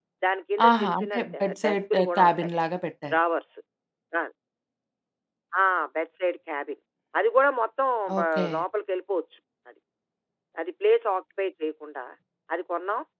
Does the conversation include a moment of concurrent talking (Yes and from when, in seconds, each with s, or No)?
Yes, from 0.7 s